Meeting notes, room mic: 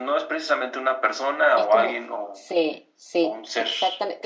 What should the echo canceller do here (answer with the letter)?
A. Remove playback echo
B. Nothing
A